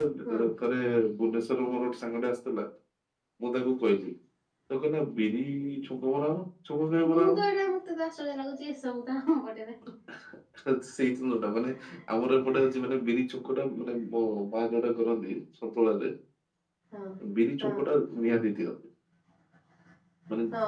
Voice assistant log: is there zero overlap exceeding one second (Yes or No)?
Yes